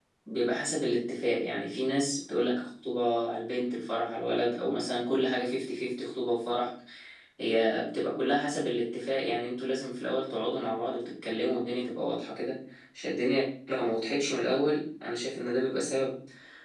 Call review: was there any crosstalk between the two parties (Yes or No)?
No